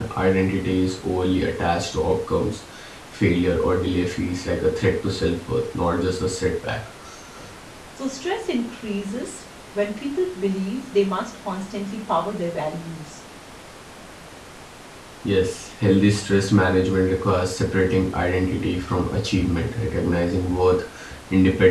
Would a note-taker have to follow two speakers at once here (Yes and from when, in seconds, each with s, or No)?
No